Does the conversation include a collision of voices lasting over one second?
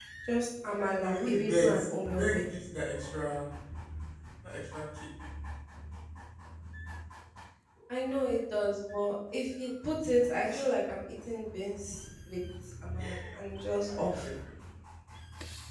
Yes, from 0.9 s

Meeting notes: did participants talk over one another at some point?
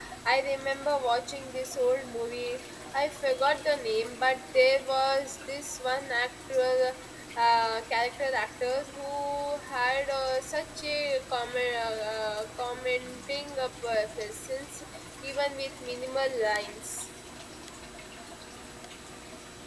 No

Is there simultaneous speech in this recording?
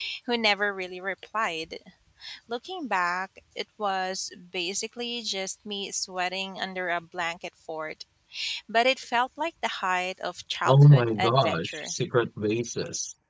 Yes, from 10.7 s

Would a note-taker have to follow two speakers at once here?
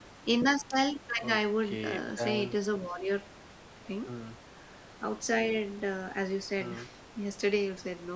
Yes, from 1.2 s

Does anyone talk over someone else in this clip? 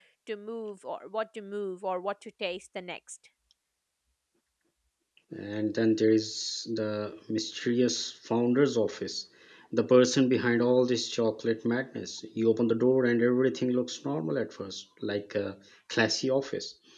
No

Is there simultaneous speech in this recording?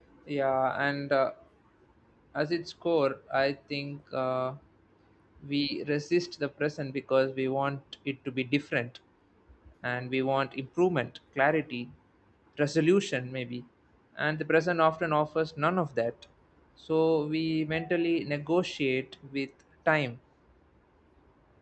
No

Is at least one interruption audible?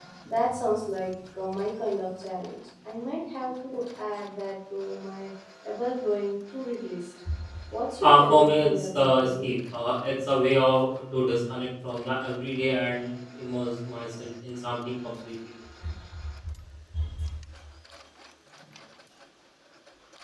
Yes, from 8.0 s

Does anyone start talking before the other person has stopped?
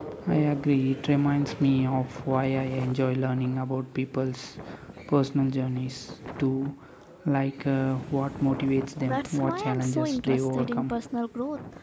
Yes, from 9.0 s

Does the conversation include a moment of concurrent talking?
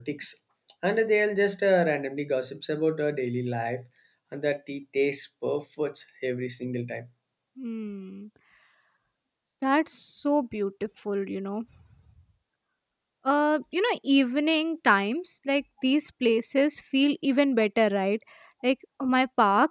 No

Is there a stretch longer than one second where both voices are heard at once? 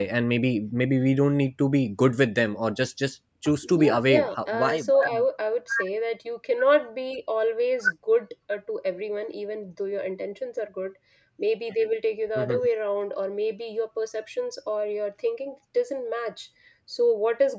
Yes, from 3.6 s

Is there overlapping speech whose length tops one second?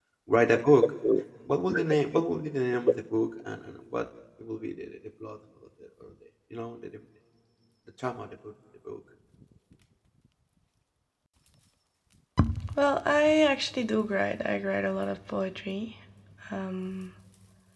No

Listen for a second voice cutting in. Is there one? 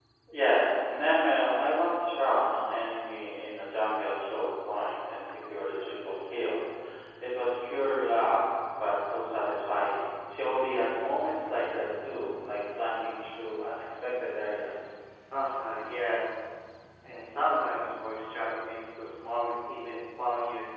No

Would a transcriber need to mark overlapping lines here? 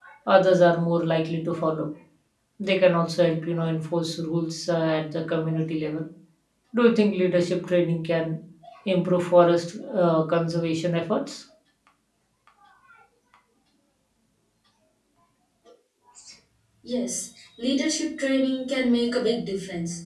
No

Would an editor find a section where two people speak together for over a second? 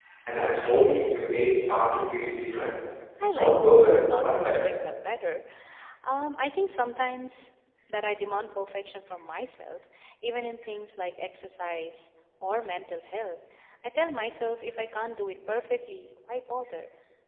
Yes, from 3.3 s

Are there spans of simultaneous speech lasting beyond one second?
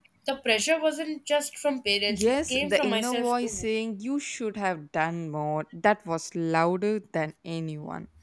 Yes, from 2.1 s

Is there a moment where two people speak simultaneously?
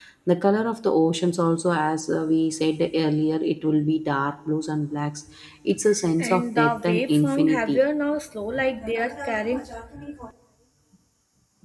Yes, from 6.2 s

